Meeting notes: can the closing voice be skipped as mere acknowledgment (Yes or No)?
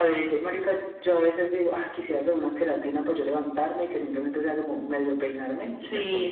No